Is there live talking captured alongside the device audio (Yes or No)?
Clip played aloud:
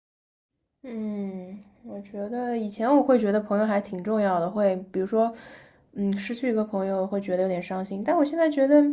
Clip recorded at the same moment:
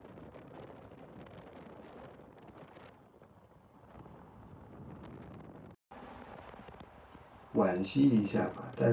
Yes